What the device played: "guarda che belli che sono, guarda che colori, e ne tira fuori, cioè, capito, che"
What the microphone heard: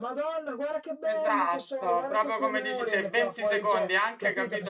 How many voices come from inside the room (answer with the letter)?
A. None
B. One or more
B